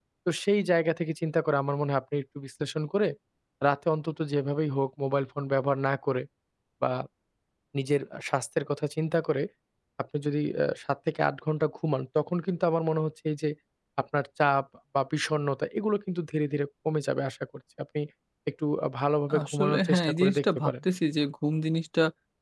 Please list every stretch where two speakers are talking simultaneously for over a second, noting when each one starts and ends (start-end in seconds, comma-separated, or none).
19.4-20.7